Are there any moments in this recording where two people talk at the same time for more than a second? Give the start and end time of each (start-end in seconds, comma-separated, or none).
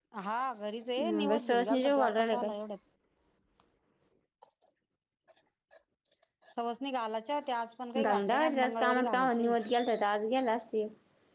1.0-2.5, 8.0-9.5